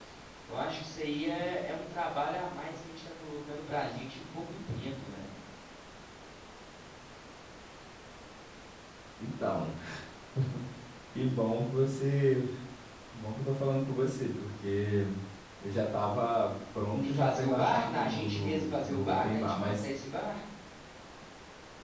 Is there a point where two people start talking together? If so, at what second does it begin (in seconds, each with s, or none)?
16.9 s